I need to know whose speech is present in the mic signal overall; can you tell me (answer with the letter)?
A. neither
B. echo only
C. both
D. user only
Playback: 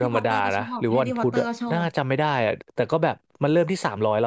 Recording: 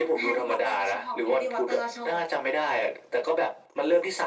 B